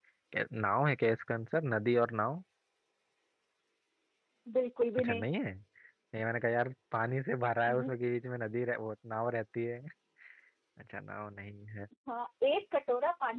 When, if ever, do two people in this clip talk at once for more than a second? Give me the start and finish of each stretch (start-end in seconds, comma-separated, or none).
none